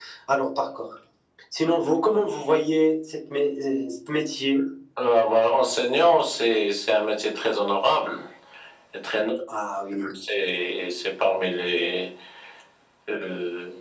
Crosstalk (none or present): none